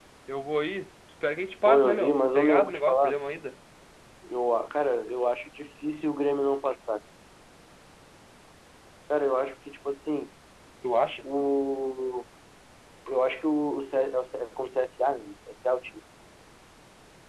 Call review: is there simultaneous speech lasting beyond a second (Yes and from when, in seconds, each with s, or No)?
Yes, from 1.6 s